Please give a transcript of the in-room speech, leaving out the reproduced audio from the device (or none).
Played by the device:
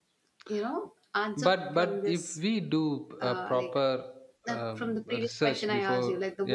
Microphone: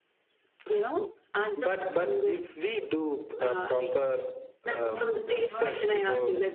No, this is horrible.